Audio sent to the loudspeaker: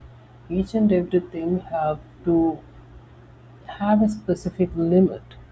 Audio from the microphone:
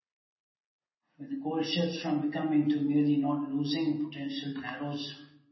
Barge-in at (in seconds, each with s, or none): 1.2 s